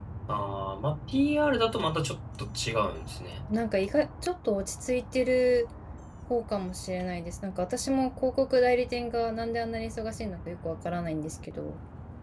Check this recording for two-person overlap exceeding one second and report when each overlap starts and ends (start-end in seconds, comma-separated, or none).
none